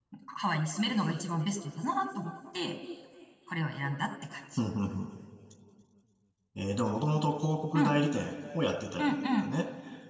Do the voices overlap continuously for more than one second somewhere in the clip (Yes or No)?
No